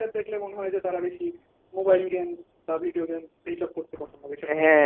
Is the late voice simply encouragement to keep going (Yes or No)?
No